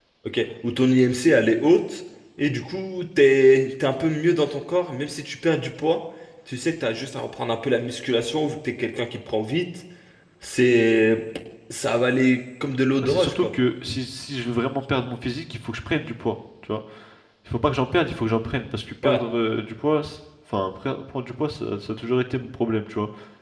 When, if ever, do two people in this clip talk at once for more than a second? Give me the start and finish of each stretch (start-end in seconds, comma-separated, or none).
none